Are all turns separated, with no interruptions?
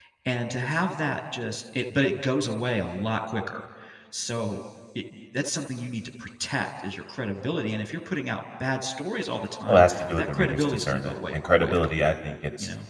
No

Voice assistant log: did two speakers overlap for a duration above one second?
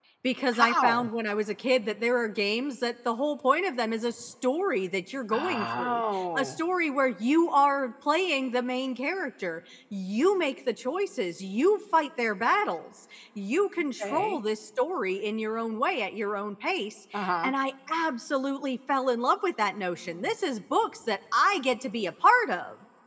Yes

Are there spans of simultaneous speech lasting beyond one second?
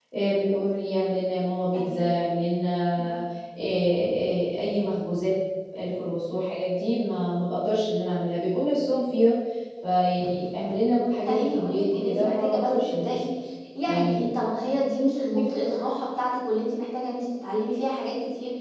Yes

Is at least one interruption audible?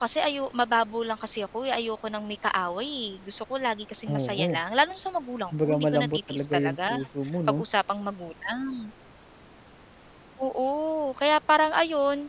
Yes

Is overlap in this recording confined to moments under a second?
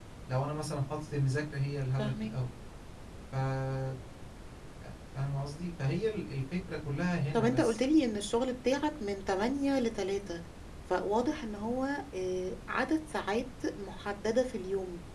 Yes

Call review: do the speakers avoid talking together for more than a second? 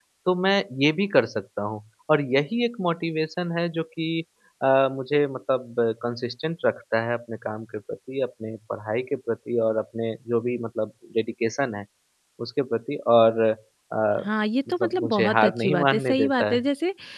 No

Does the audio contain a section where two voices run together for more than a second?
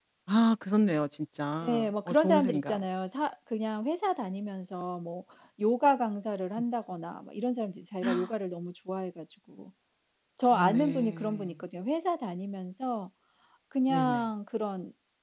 Yes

